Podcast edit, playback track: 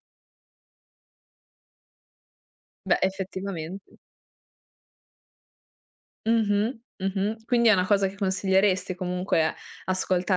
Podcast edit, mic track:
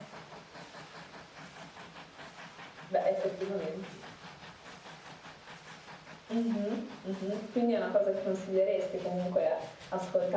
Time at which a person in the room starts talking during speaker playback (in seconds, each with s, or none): none